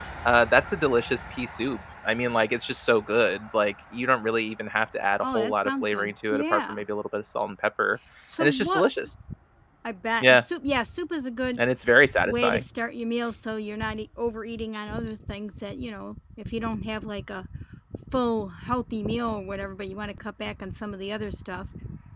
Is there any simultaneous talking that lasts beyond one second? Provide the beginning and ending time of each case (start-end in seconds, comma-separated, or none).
5.2-6.8